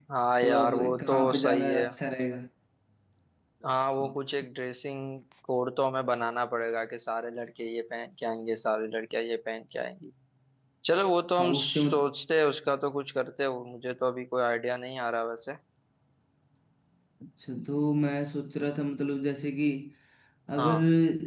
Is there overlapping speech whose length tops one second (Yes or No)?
Yes